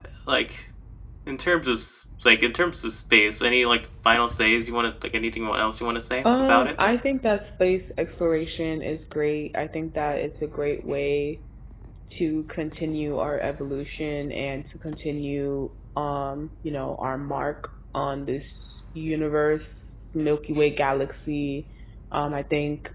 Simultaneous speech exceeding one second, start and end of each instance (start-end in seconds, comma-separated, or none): none